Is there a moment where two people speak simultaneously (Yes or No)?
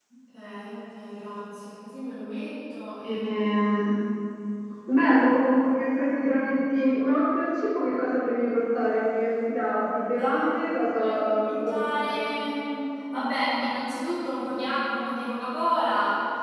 Yes